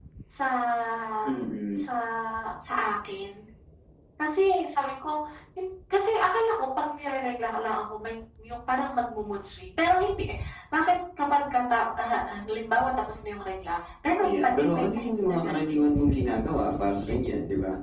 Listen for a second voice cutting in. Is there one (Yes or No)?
Yes